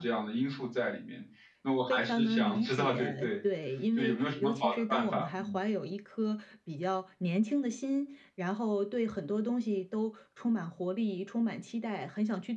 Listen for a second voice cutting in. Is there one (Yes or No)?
Yes